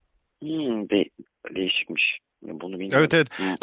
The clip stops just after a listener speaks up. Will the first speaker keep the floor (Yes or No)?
No